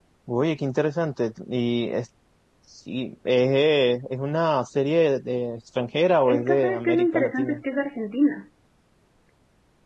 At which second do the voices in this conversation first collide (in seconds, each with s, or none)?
6.2 s